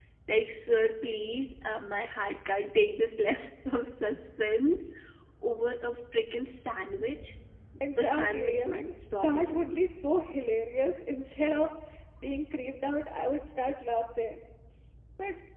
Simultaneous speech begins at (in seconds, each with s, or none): 8.0 s